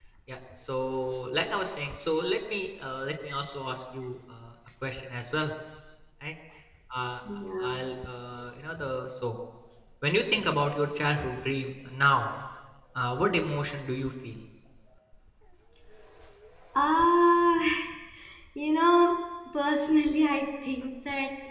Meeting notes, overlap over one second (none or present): none